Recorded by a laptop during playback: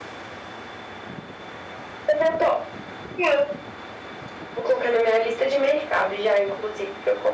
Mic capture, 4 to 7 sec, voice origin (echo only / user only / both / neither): echo only